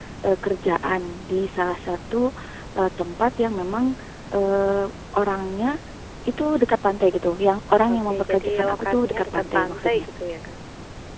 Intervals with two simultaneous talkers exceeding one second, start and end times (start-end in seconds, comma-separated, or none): 7.9-10.1